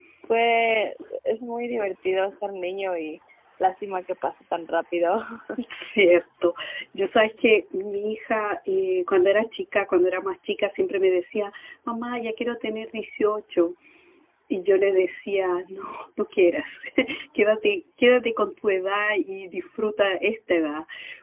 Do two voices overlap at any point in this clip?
No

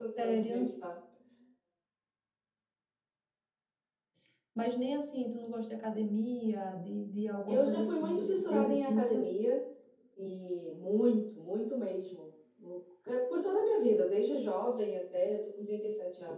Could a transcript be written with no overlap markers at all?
No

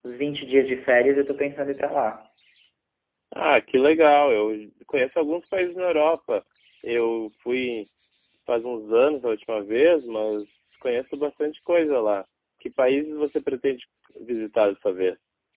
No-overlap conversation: Yes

